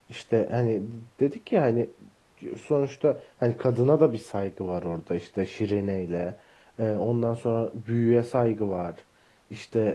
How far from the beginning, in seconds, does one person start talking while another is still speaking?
none

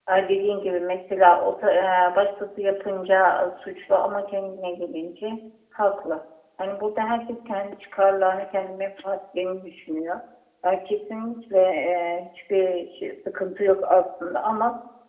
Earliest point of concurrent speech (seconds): none

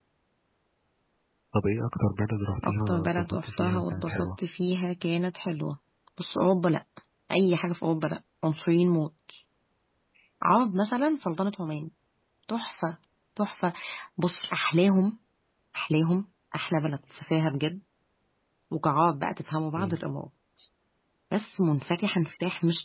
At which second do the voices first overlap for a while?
3 s

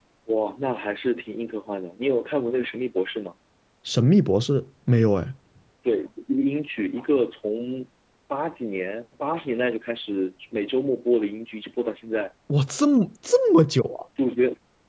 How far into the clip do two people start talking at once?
none

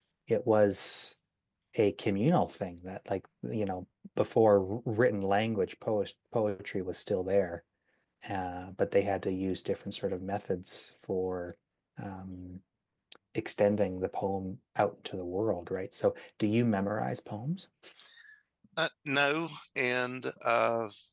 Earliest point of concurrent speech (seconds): none

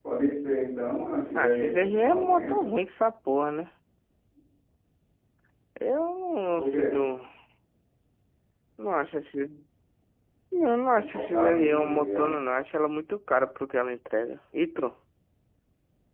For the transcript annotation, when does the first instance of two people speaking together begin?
1 s

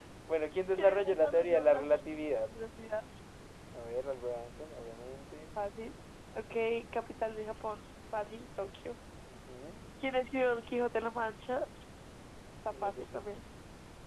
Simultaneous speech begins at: 1 s

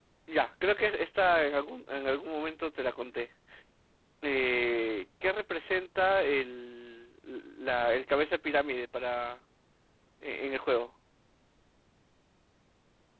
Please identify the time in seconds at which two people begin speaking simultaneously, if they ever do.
none

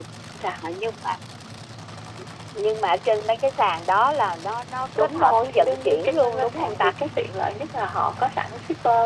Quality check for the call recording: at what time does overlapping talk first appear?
5 s

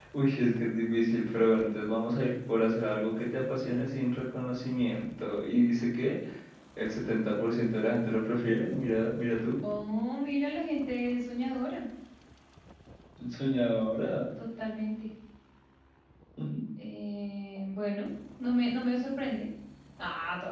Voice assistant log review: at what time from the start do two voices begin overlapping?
none

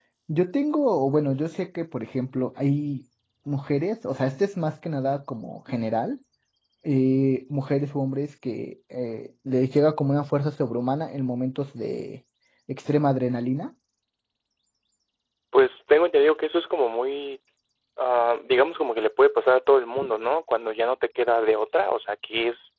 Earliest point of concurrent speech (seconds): none

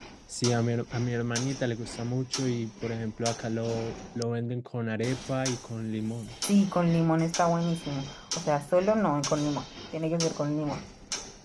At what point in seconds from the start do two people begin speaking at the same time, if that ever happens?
none

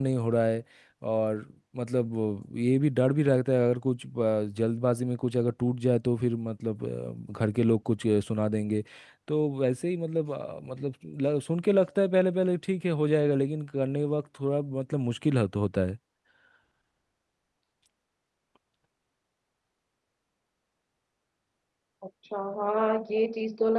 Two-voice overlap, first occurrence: none

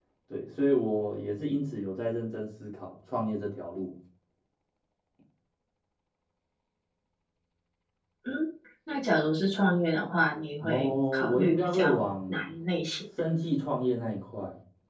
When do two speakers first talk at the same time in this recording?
11 s

